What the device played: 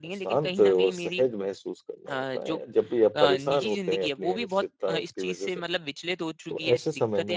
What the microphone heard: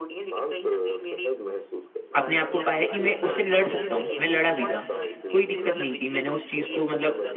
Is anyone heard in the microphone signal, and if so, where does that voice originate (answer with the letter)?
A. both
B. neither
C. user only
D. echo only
A